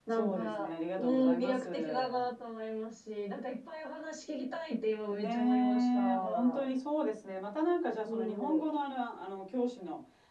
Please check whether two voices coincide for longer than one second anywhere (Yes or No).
Yes